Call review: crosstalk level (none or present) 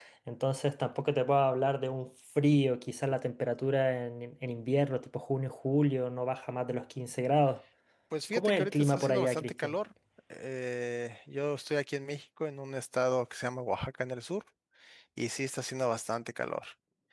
present